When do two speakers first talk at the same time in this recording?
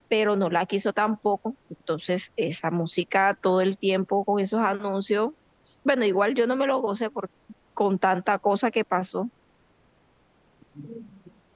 none

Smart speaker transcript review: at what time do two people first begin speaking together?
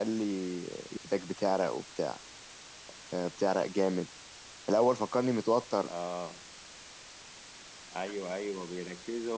none

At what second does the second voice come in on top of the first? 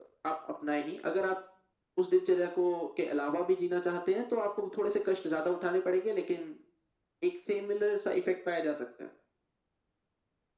none

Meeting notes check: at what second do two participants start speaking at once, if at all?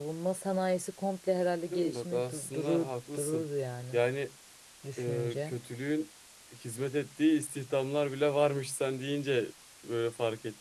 1.7 s

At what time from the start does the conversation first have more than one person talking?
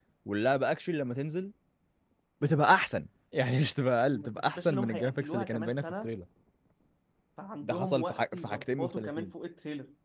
4.1 s

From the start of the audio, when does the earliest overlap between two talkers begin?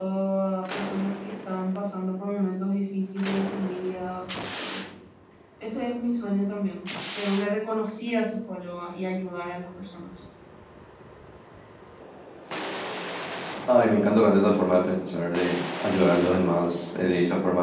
none

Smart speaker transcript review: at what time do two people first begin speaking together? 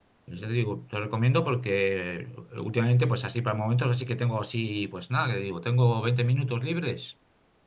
none

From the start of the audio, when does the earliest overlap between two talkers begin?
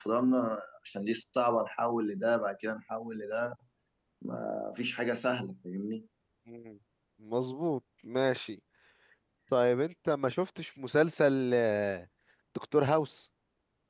none

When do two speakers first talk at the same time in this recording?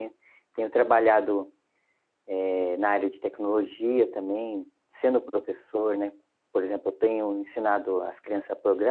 none

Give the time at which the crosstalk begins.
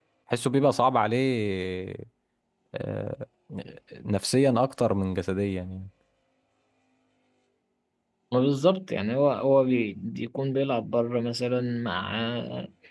none

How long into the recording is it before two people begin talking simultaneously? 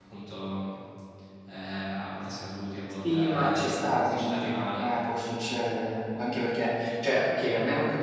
3.0 s

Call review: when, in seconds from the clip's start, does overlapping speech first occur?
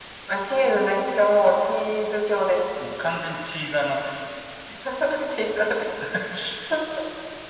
none

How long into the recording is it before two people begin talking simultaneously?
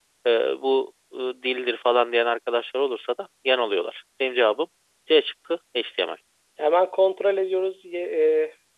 none

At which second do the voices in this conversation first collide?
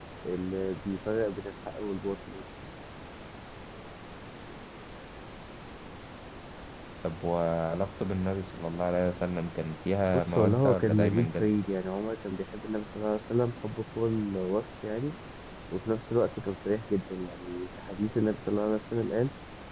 10.0 s

